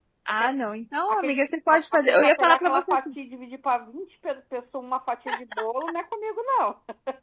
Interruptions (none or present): present